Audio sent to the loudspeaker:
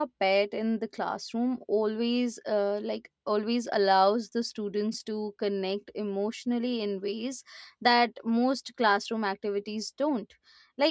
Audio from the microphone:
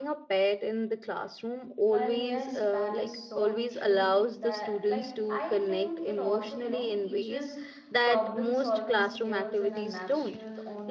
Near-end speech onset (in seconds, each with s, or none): 1.8 s